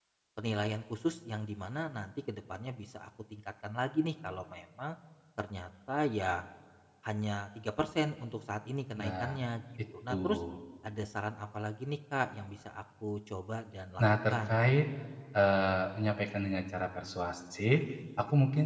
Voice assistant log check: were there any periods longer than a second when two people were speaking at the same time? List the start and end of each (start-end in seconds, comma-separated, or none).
none